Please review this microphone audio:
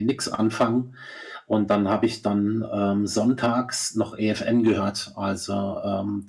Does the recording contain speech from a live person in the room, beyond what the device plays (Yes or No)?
No